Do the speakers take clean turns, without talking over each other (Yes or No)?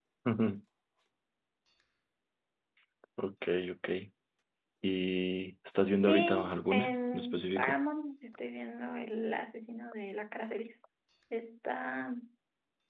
No